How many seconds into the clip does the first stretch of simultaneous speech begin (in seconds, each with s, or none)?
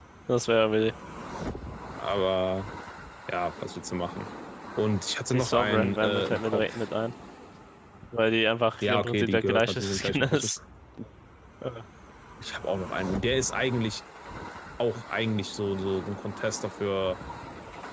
5.3 s